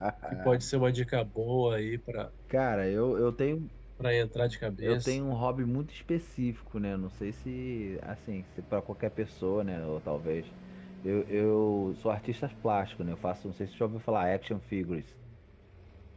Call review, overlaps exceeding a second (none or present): none